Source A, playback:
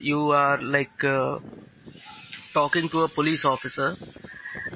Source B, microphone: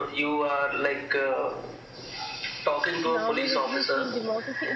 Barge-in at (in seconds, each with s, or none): 3.0 s